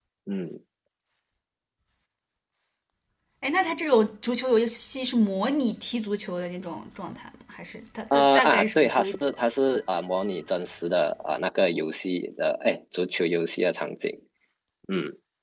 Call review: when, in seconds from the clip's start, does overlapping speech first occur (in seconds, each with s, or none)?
8.1 s